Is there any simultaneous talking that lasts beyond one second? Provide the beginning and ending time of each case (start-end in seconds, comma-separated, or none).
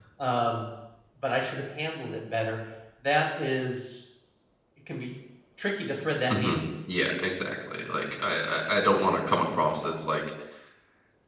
none